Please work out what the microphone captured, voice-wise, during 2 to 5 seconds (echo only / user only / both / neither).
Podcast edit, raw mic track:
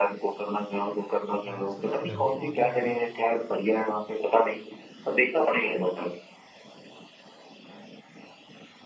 both